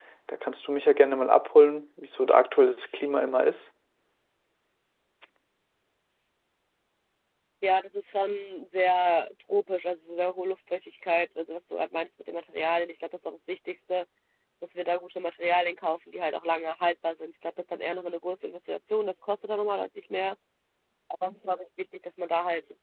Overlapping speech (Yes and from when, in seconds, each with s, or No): No